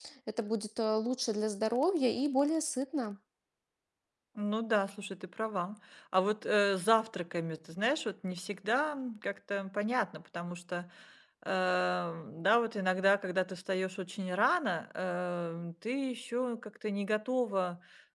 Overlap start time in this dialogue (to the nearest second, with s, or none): none